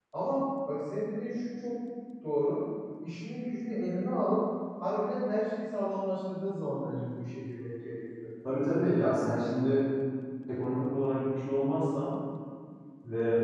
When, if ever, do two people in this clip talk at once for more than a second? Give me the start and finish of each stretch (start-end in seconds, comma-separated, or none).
none